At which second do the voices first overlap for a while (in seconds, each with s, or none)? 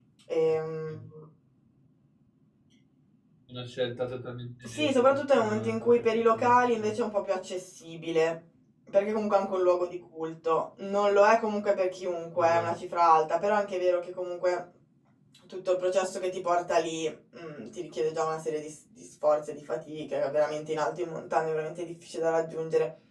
4.6 s